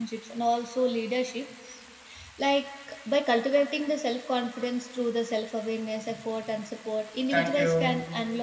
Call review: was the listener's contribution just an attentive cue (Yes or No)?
Yes